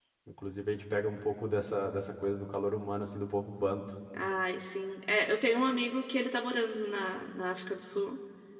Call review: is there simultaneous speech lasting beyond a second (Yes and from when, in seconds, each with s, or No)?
No